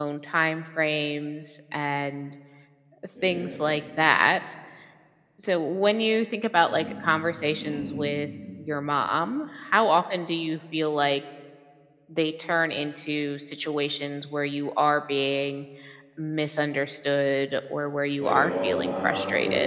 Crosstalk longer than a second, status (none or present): present